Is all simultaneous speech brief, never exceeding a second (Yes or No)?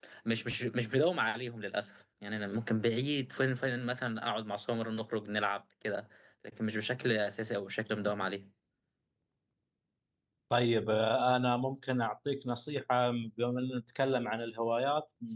Yes